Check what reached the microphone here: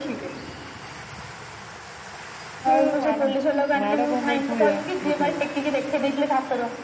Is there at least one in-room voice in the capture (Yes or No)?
Yes